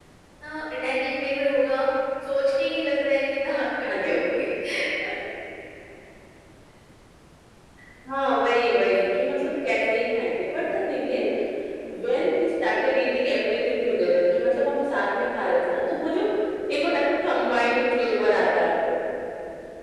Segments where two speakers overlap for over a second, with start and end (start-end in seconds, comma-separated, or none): none